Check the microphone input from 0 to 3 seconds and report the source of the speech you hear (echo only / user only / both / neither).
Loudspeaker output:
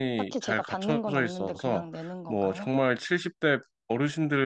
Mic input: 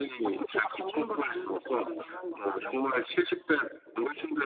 echo only